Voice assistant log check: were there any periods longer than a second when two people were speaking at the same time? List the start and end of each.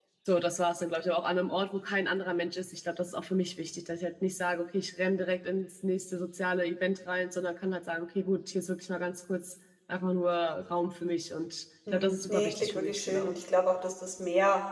11.9-13.3

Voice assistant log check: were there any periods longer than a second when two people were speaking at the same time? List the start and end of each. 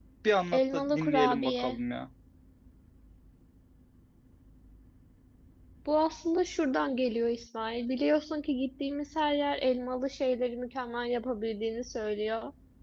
0.5-1.8

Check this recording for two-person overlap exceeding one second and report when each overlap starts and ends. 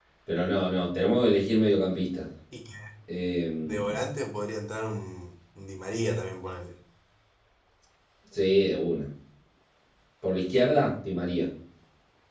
none

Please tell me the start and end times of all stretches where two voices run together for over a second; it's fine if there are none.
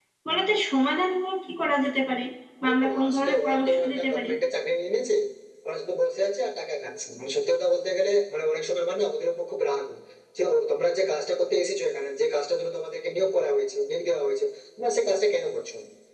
2.7-4.3

